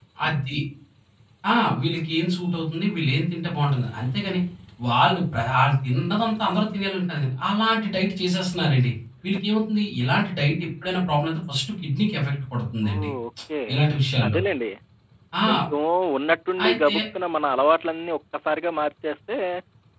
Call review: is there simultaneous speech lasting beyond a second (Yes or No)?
No